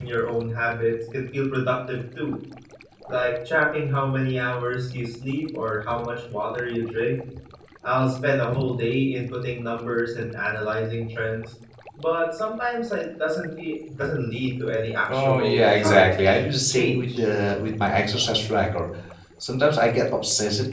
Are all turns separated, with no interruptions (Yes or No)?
No